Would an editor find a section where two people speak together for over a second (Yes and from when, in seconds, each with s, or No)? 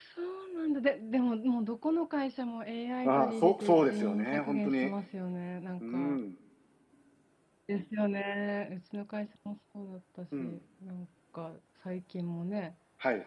Yes, from 3.0 s